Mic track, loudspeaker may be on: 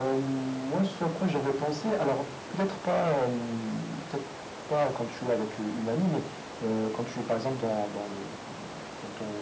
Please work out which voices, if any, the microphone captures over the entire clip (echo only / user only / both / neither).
echo only